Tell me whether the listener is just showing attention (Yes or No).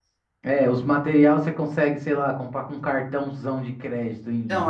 No